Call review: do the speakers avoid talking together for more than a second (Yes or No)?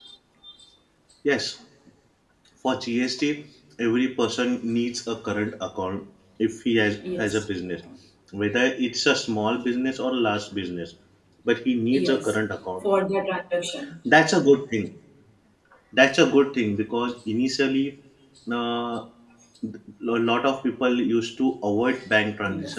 Yes